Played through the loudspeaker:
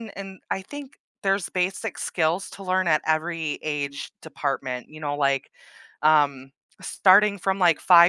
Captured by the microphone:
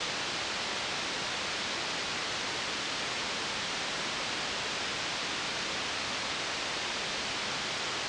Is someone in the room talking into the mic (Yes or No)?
No